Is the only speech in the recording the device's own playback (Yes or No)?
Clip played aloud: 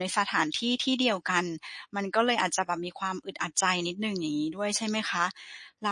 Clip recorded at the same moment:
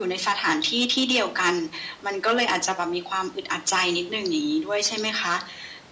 Yes